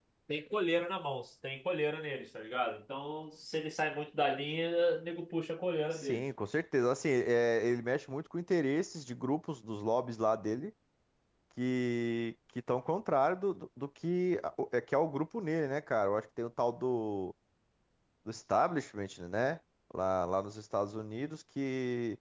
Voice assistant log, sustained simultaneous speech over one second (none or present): none